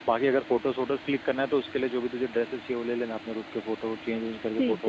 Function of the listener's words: taking over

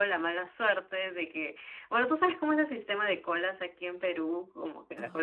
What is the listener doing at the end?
listening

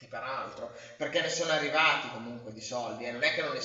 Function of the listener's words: listening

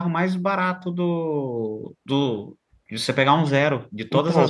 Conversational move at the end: taking over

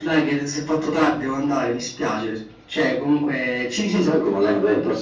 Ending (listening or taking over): taking over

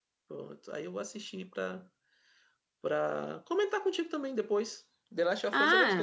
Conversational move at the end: taking over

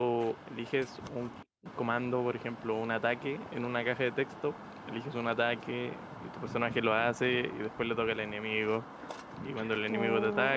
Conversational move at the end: listening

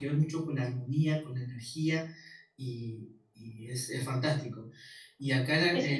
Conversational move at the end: listening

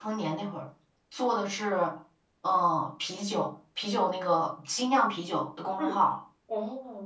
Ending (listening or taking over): taking over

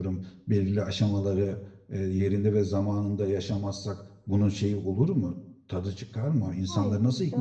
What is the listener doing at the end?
taking over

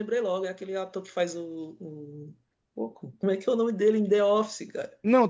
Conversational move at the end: taking over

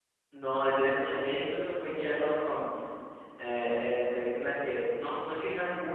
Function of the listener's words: listening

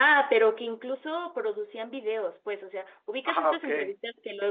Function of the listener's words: listening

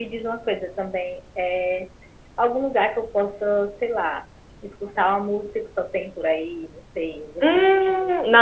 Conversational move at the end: taking over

